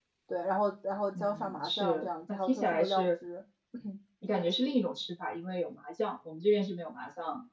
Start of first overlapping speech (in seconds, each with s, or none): 1.2 s